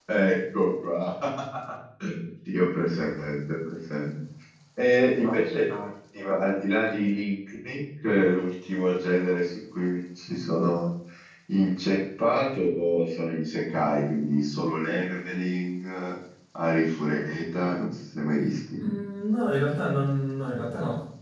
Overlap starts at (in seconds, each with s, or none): none